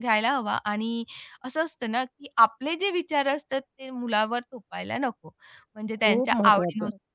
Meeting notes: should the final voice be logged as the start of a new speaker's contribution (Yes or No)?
No